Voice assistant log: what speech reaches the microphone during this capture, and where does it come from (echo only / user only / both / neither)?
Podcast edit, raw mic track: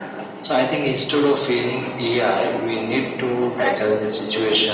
both